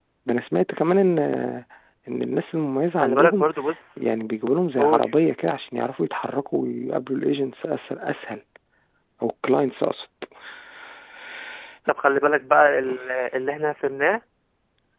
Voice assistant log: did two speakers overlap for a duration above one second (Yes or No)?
No